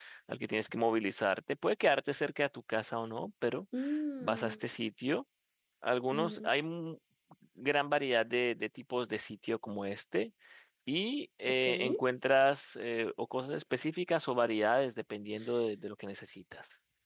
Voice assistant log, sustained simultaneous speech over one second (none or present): none